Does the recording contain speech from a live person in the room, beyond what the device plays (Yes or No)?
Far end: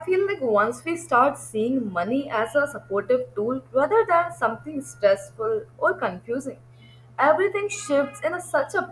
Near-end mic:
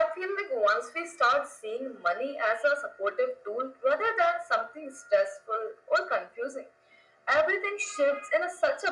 No